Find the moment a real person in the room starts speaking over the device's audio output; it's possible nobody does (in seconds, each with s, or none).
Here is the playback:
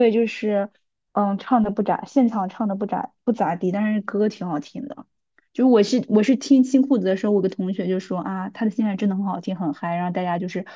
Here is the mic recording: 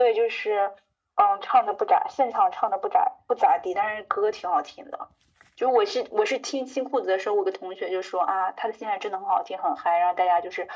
none